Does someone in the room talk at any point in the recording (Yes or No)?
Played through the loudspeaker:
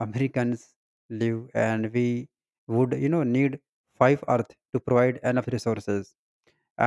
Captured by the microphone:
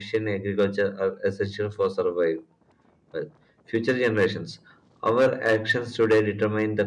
Yes